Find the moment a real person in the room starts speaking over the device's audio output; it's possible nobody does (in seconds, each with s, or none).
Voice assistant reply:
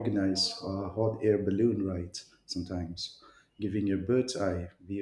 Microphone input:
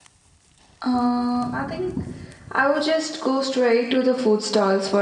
0.8 s